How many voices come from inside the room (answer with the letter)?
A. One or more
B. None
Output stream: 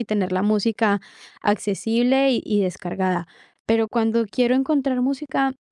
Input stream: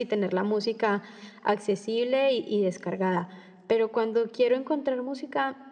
B